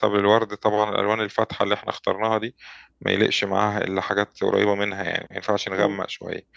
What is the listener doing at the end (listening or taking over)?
listening